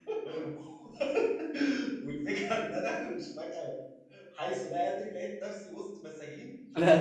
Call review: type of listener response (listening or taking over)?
taking over